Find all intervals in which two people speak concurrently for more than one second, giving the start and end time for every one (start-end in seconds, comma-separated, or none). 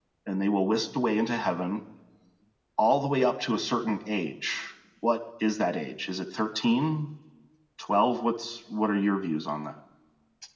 none